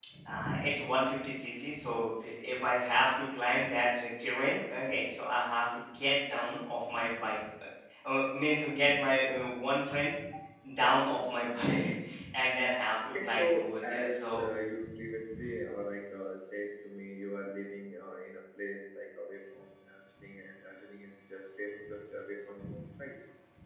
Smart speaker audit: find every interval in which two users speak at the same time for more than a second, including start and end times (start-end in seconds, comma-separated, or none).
13.2-14.4